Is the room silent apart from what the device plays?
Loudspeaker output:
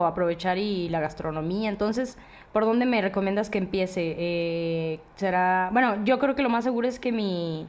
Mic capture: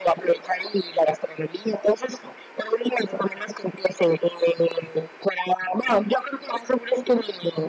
Yes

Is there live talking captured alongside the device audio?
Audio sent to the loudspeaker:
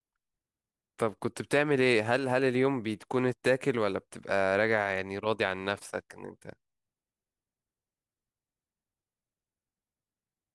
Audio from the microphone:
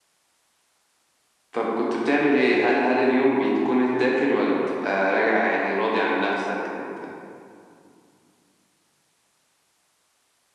No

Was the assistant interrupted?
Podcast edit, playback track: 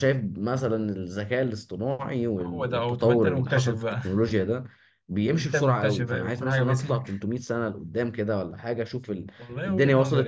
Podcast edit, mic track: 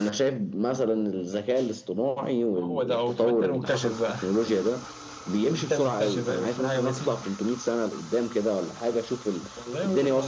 No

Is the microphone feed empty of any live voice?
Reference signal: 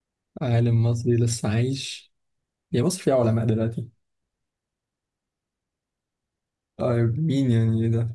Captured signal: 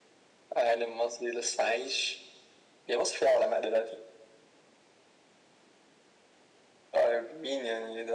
Yes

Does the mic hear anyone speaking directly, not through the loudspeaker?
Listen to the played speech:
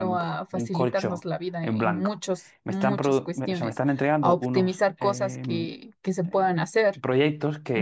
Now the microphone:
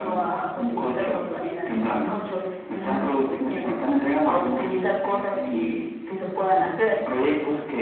No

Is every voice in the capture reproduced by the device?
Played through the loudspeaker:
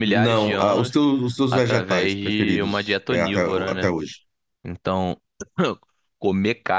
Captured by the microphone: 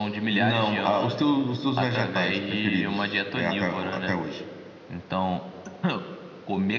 Yes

